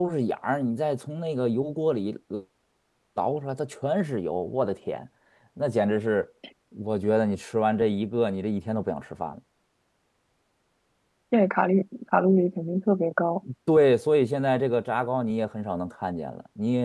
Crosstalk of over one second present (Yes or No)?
No